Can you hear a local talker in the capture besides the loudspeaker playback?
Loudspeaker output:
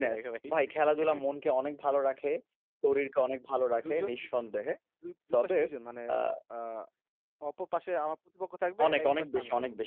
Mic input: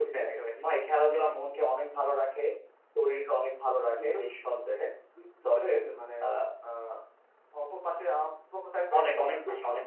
No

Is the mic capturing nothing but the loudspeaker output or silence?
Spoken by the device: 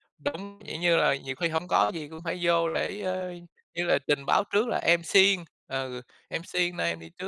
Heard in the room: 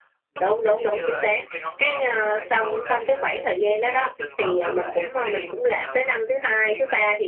No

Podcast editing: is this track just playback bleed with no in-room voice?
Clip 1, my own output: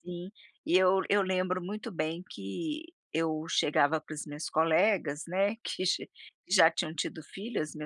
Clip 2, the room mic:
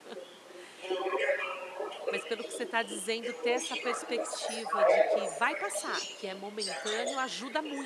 No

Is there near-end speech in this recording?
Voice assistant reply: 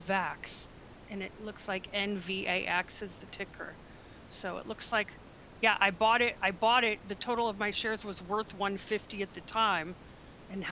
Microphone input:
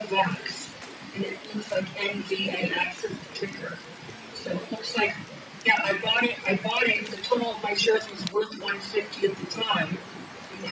No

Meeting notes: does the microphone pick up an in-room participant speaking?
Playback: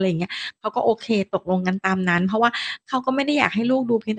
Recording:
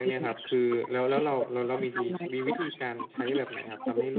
Yes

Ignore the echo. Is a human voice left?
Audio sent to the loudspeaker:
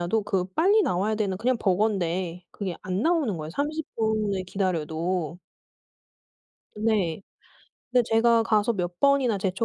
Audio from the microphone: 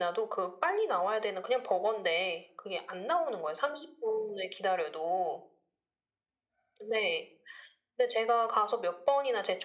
No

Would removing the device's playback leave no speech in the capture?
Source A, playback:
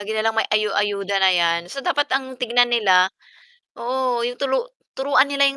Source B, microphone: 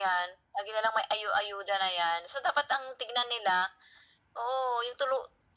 Yes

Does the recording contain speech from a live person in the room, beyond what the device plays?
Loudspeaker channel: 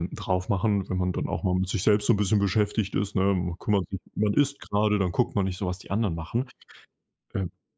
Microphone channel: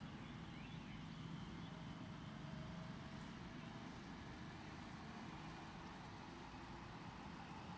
No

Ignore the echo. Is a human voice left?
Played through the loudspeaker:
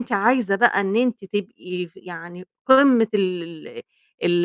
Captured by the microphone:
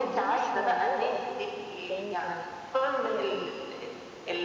Yes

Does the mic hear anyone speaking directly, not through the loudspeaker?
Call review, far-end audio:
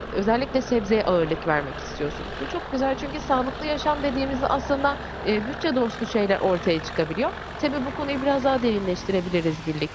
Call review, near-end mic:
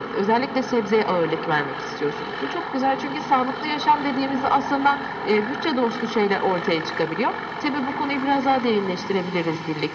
No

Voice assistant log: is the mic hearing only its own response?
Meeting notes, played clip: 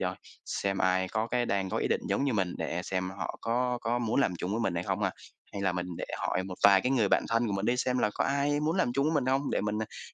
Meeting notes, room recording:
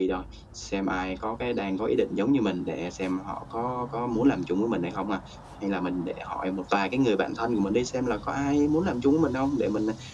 Yes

